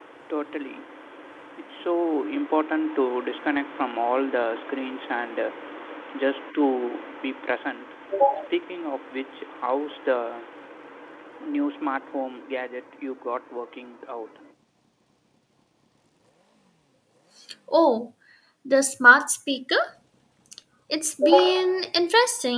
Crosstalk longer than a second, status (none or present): none